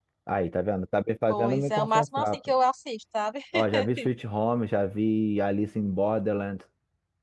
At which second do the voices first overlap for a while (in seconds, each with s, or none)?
1.3 s